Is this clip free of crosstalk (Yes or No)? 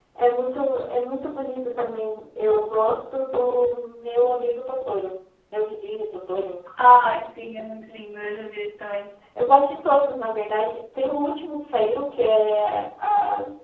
Yes